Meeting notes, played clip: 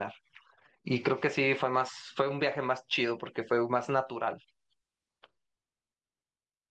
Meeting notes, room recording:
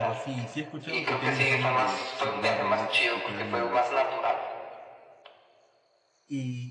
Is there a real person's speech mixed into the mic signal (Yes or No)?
Yes